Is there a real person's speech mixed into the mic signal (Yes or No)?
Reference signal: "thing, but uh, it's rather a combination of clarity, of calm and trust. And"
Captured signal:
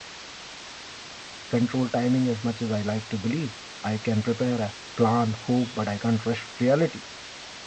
Yes